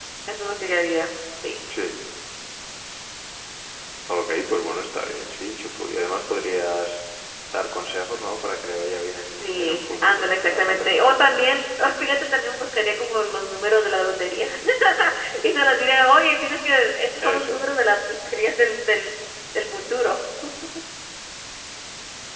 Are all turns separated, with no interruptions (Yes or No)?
No